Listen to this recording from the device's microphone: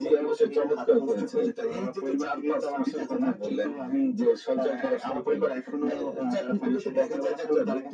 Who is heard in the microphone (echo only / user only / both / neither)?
echo only